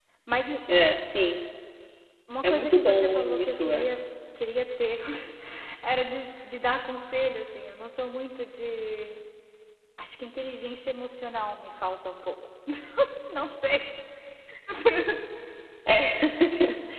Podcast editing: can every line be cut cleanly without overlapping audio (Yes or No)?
No